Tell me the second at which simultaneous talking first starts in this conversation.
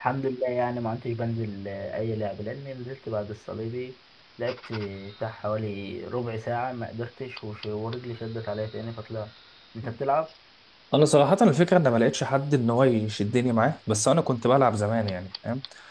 none

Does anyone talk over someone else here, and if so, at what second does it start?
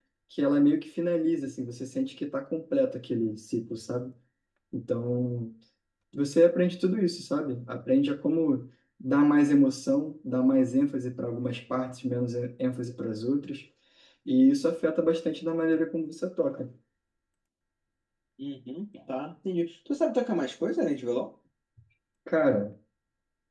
none

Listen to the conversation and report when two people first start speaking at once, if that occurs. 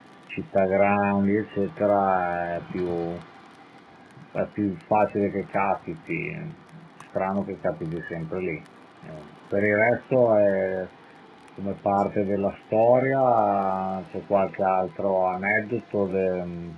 none

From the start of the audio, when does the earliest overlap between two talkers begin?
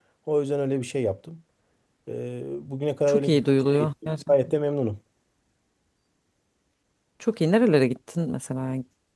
3.1 s

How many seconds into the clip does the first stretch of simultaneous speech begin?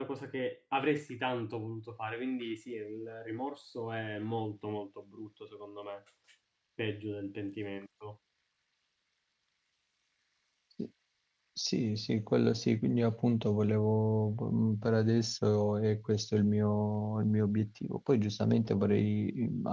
none

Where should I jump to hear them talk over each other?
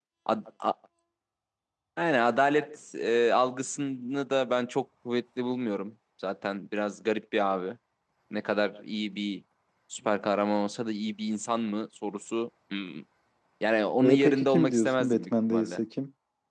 14.0 s

